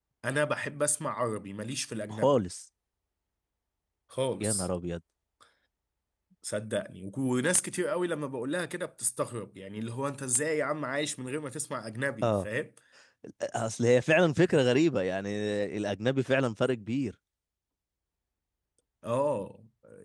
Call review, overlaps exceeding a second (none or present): none